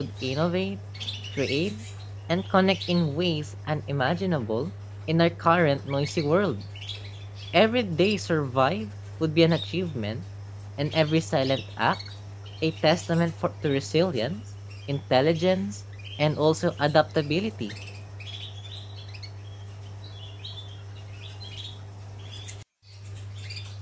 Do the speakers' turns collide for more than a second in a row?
No

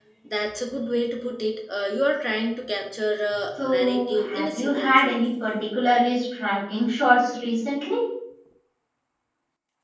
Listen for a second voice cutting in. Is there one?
Yes, from 3.6 s

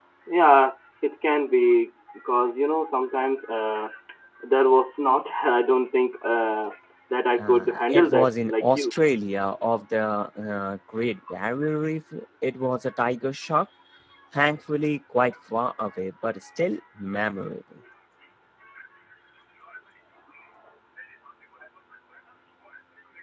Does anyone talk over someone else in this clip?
Yes, from 7.4 s

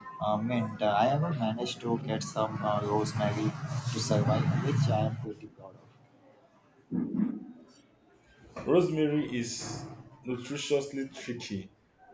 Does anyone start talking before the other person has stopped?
No

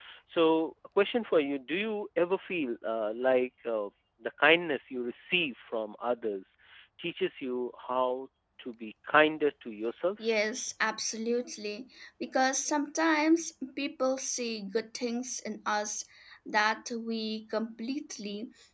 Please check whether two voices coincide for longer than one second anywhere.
No

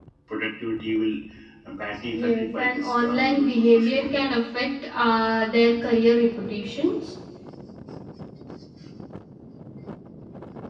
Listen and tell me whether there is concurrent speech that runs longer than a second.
Yes, from 2.1 s

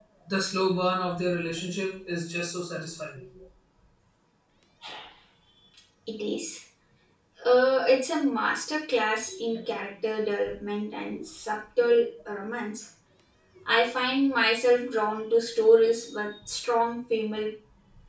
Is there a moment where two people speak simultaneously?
No

